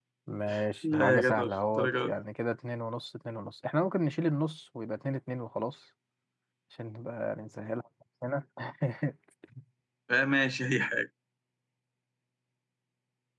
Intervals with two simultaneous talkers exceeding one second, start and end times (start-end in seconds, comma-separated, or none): 0.9-2.1